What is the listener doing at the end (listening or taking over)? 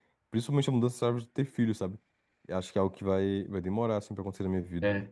taking over